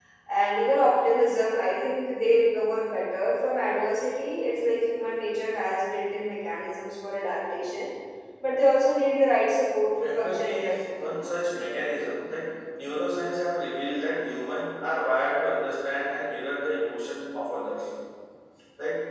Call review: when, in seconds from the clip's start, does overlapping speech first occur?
10.0 s

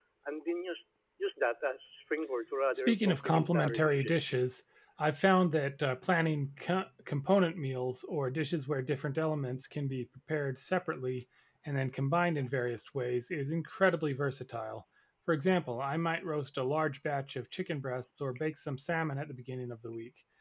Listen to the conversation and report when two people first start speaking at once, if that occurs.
2.8 s

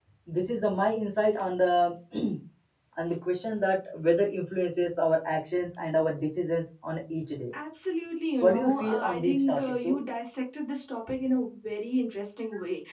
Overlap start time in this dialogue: 8.4 s

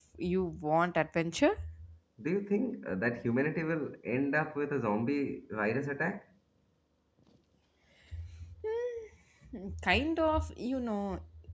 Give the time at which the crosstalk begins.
none

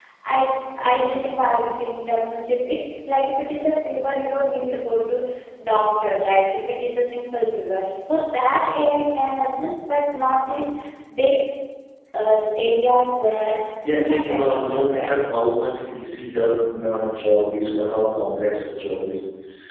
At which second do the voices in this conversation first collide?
13.8 s

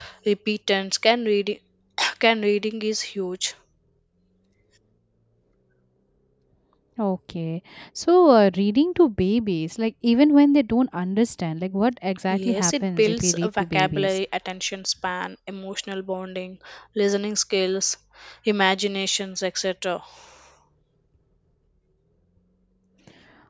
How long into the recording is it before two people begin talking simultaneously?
12.3 s

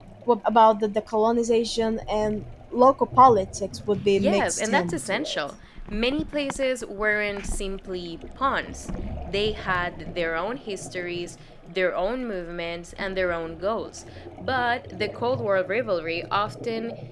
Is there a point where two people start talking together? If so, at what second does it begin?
4.2 s

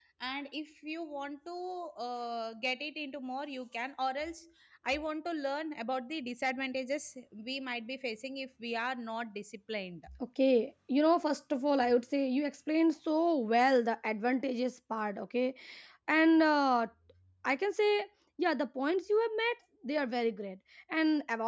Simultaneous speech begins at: none

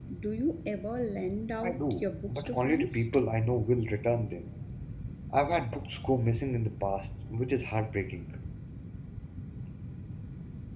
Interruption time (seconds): 1.6 s

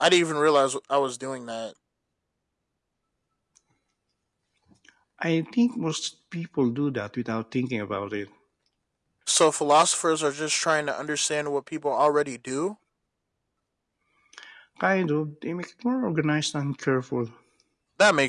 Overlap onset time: none

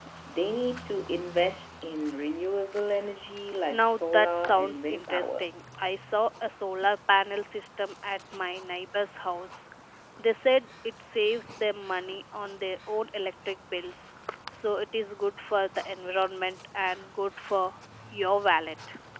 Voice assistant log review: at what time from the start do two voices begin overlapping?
3.7 s

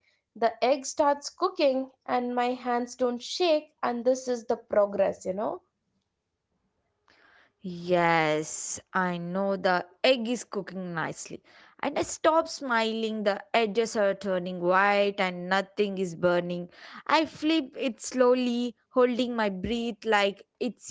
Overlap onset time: none

